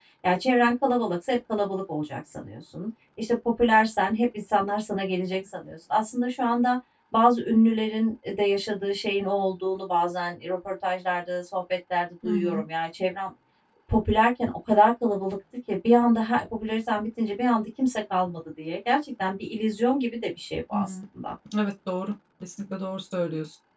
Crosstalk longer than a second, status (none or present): none